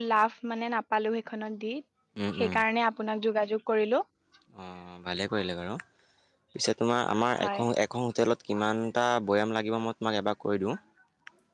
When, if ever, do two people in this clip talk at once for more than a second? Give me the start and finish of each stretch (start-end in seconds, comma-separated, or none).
none